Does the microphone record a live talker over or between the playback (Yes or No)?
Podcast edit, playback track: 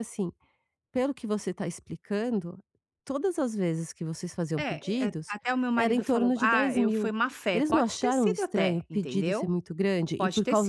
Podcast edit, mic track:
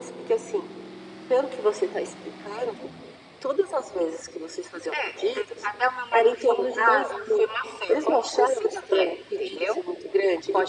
No